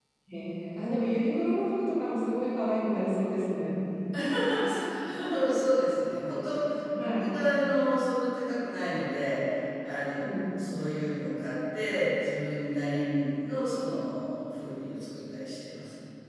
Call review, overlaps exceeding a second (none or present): none